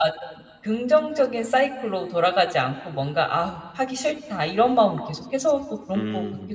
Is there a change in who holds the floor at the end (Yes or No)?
Yes